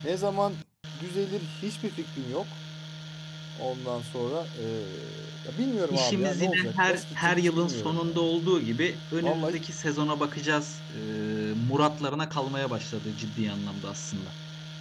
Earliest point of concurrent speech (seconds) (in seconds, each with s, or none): 5.9 s